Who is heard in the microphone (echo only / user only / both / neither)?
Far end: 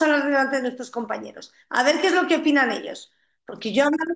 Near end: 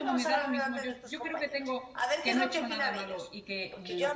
both